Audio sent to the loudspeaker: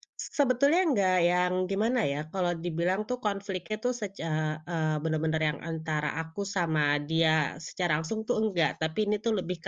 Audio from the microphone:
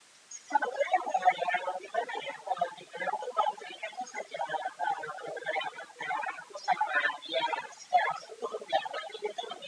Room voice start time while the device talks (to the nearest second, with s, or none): none